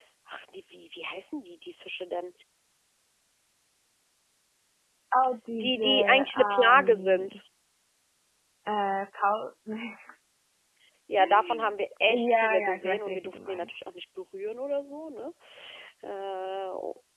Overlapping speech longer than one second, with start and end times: 5.6-7.4, 12.1-13.8

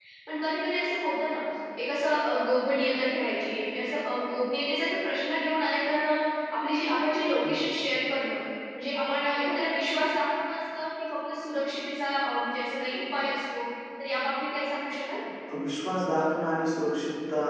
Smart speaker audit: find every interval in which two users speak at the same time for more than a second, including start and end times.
none

